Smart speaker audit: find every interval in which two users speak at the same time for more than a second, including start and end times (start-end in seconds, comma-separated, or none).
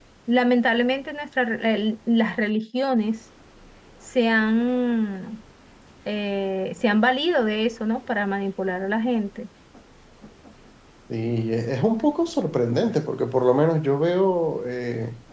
none